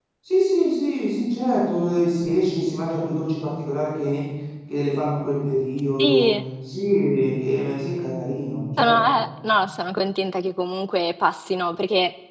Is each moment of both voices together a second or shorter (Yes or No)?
Yes